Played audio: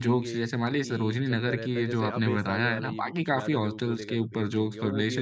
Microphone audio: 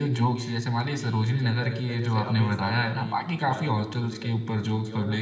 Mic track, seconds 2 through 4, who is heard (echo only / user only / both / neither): echo only